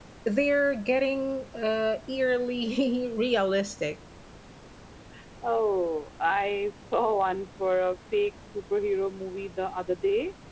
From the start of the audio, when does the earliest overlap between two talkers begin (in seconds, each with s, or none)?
none